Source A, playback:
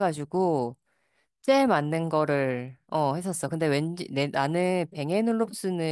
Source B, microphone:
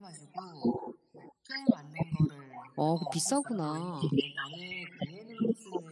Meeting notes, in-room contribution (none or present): present